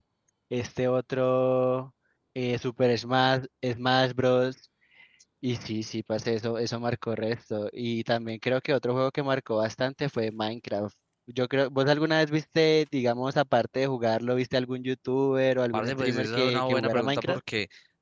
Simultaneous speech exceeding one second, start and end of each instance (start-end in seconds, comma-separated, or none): 15.7-17.4